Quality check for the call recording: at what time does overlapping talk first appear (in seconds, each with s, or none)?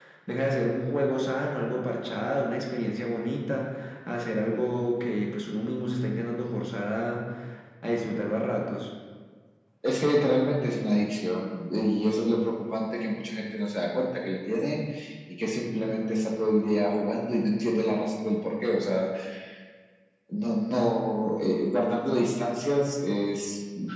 none